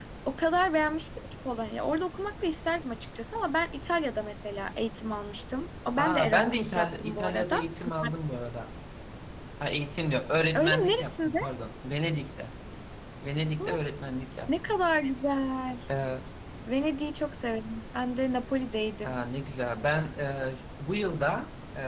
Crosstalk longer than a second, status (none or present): present